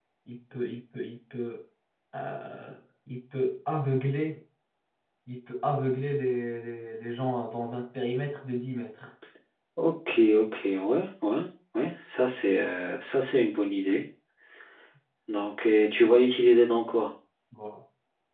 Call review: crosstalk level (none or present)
none